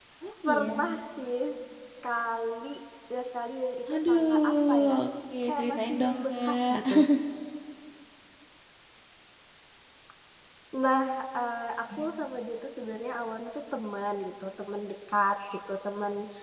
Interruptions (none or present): present